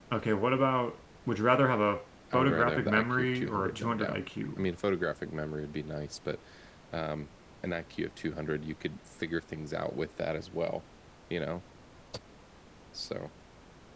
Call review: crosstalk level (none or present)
present